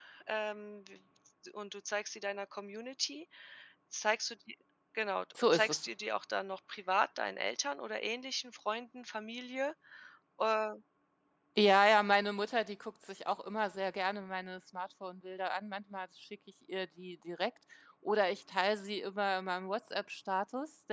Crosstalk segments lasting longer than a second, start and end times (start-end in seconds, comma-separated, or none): none